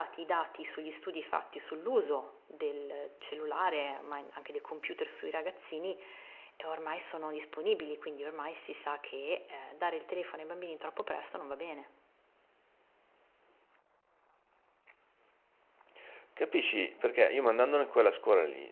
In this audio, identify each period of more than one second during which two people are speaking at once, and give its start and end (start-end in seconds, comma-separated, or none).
none